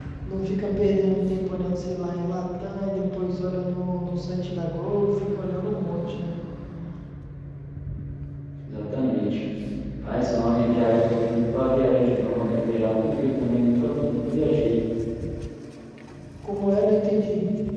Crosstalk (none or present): none